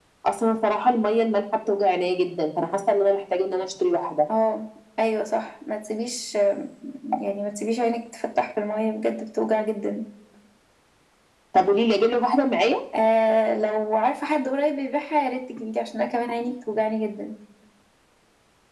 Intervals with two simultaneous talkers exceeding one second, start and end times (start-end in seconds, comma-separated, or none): none